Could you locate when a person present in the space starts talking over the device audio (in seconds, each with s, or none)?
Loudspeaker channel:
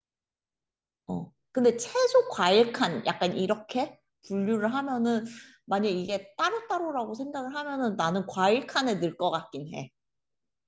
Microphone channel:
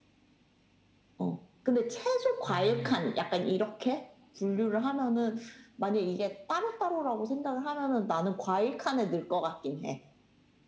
2.5 s